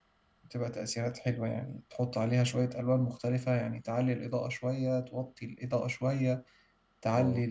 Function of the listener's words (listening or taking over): listening